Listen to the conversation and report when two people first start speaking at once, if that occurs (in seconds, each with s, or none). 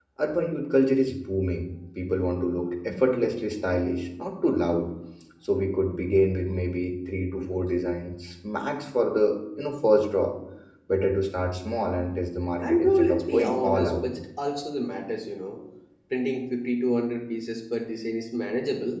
12.6 s